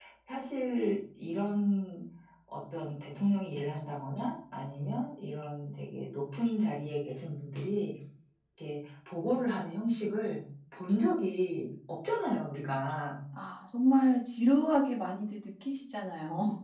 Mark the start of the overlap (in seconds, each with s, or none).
none